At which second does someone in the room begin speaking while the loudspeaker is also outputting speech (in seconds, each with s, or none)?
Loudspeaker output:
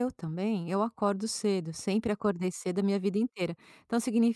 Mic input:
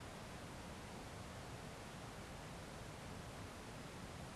none